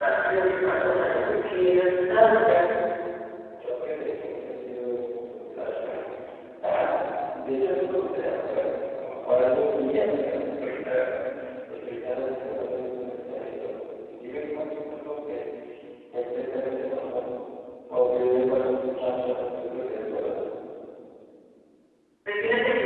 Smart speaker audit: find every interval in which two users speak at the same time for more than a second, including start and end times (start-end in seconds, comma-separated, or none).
none